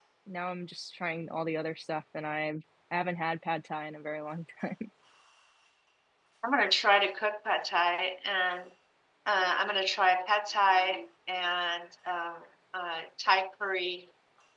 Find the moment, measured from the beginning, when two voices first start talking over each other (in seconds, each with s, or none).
none